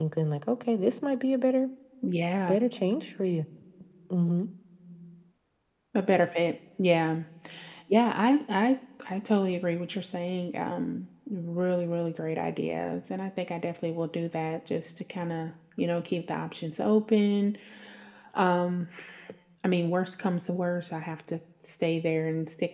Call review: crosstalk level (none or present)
none